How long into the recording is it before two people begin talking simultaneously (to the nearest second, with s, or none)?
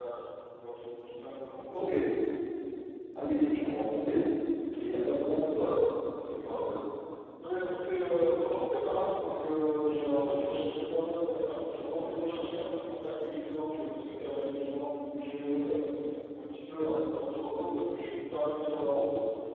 none